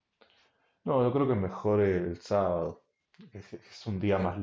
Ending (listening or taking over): listening